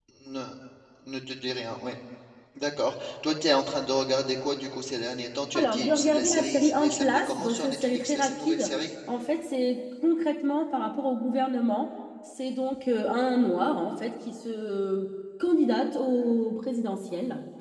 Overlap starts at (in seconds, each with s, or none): 5.6 s